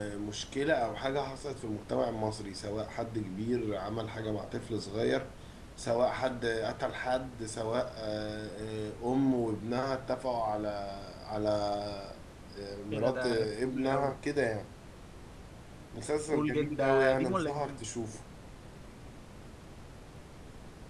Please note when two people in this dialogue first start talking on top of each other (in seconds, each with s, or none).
12.9 s